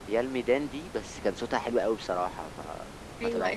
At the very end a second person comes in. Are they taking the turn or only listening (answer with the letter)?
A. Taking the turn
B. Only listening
A